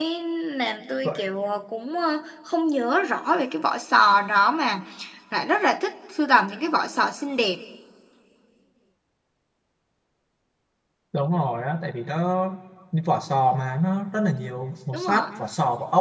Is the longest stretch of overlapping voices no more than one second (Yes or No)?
Yes